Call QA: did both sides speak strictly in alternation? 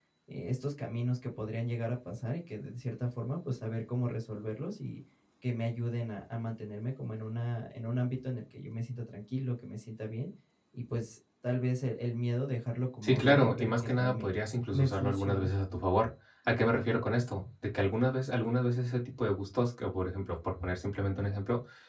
No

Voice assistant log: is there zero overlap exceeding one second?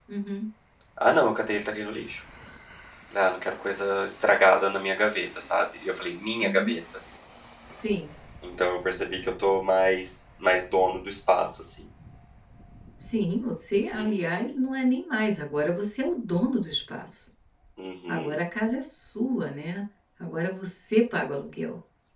Yes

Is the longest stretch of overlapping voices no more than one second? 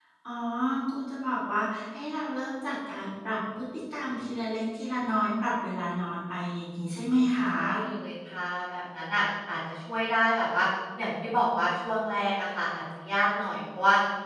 Yes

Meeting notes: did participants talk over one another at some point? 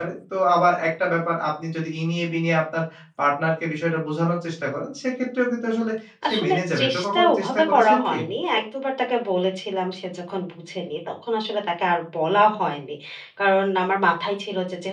Yes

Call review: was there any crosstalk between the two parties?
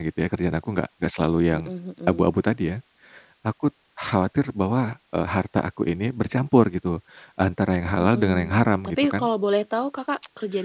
Yes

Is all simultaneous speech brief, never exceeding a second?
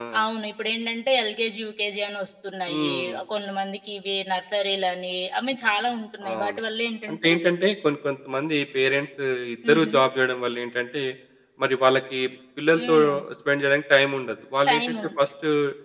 Yes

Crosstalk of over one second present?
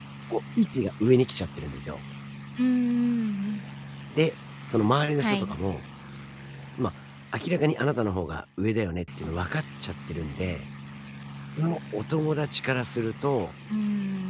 No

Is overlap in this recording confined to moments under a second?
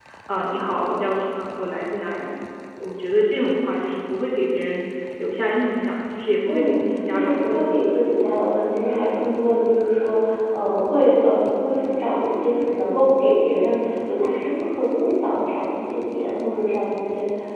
No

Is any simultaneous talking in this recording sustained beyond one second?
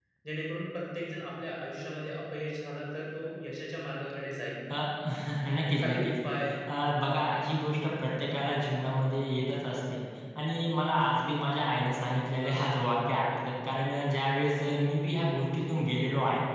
No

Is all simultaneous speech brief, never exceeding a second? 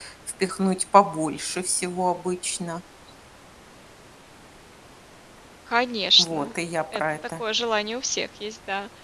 Yes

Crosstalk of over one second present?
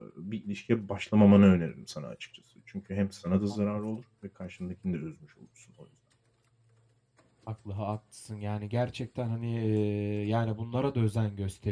No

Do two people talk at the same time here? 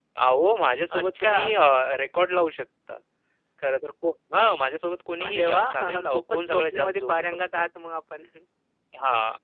Yes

